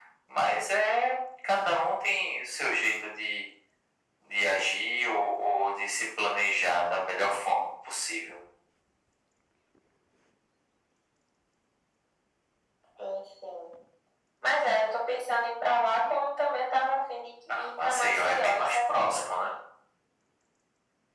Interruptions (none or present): present